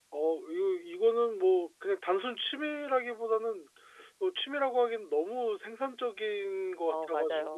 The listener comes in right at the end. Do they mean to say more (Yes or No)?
Yes